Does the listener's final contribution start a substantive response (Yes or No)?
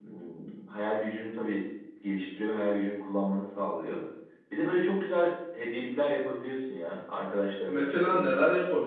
Yes